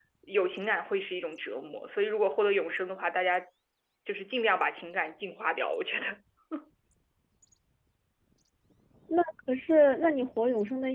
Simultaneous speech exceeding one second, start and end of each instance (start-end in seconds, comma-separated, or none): none